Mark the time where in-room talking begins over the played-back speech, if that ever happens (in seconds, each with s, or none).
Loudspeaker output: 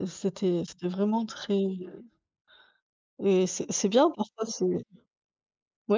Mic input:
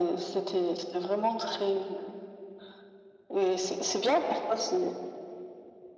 none